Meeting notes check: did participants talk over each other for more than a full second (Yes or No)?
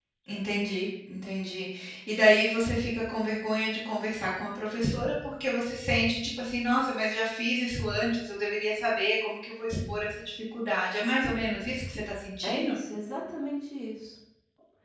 No